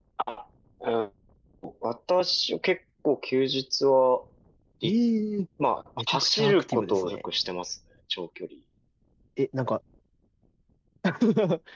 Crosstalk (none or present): present